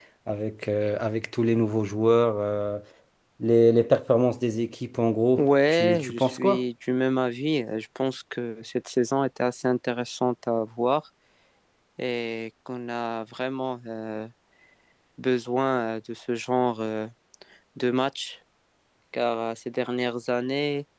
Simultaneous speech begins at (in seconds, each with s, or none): 5.4 s